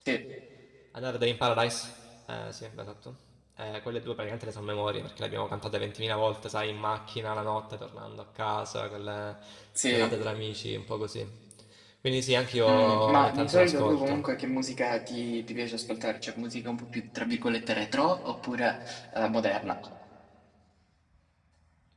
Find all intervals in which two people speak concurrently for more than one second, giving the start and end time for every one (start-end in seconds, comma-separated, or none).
12.7-14.2